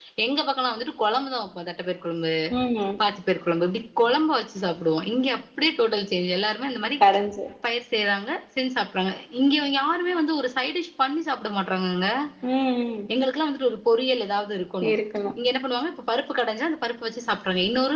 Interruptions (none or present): none